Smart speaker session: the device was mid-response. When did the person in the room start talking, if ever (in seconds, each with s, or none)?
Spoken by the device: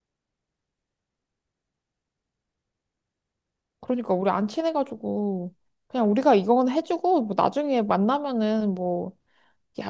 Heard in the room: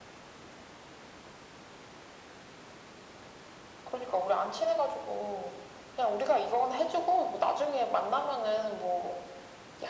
none